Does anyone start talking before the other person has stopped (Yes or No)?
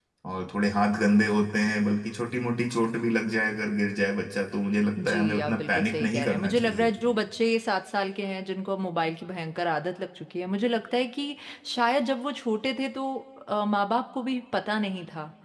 Yes